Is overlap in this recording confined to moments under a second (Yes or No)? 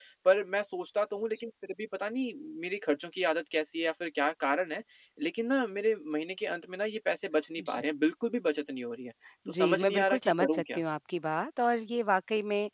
No